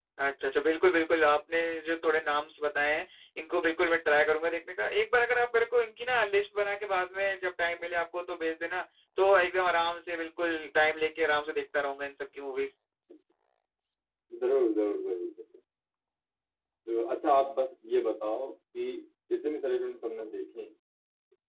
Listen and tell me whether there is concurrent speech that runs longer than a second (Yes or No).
No